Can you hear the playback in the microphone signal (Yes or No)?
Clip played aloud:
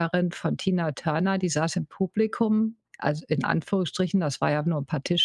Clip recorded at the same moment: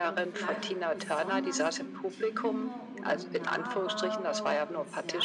Yes